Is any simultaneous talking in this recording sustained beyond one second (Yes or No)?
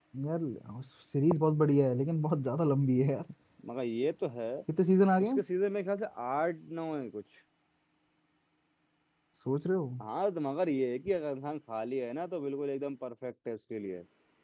No